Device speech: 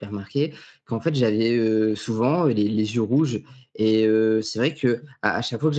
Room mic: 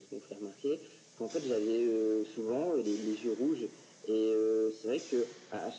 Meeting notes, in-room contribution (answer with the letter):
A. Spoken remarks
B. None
B